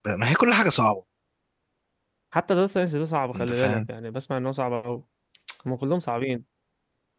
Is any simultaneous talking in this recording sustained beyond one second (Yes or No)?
No